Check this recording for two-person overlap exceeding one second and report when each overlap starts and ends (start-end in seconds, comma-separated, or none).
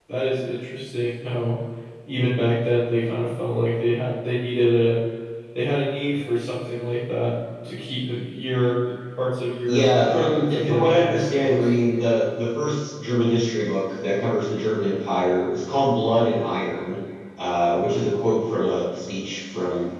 9.6-11.7